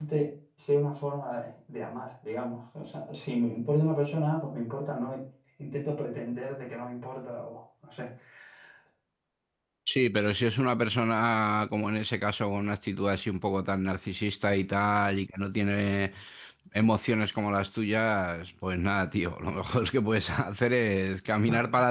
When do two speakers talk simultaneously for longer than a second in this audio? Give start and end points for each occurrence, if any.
none

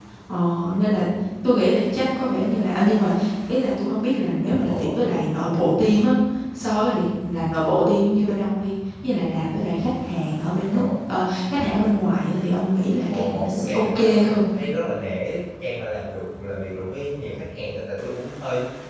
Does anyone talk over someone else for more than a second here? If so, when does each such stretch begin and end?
13.1-14.4

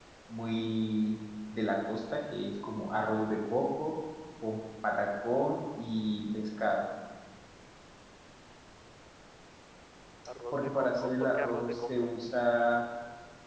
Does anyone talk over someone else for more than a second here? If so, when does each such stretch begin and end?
10.5-12.1

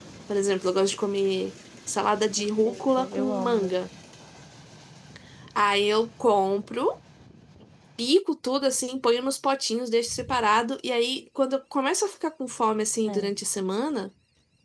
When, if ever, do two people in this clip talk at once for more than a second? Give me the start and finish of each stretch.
2.4-3.8

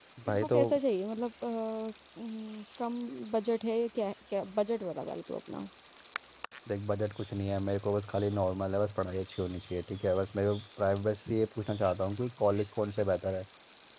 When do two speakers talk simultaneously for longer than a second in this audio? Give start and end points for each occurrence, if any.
none

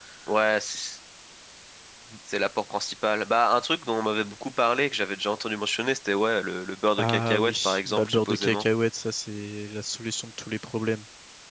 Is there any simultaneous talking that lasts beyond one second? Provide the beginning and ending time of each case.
7.0-8.7

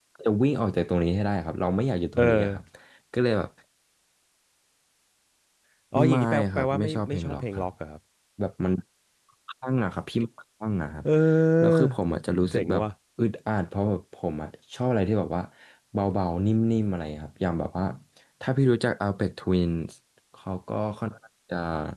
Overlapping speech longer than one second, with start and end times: 6.1-7.7

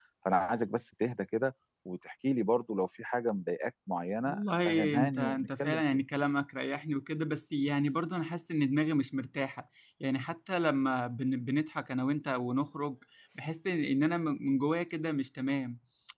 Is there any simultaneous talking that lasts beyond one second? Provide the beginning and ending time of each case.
4.3-5.8

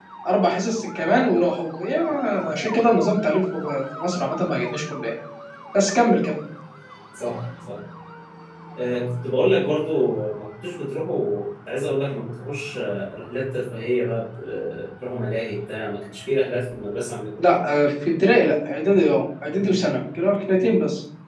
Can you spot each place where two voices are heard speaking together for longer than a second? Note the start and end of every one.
none

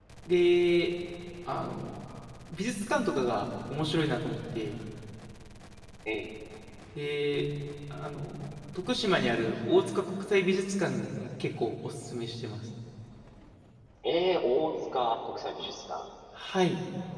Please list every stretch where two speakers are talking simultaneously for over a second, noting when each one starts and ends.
none

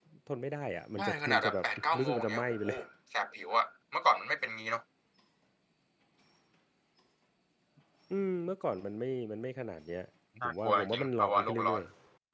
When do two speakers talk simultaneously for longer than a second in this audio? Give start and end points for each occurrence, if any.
1.0-2.6, 10.4-11.8

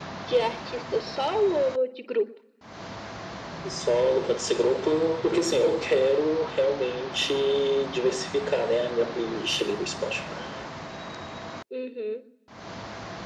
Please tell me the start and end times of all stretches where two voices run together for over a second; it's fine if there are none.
none

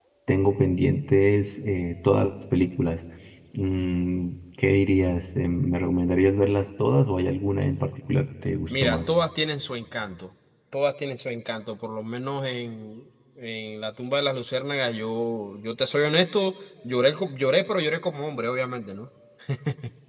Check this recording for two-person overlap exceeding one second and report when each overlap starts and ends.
none

